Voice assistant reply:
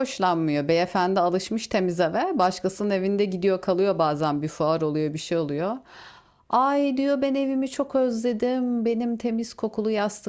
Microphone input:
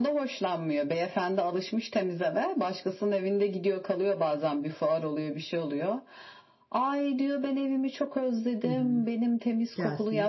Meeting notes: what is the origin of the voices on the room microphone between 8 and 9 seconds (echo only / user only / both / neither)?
both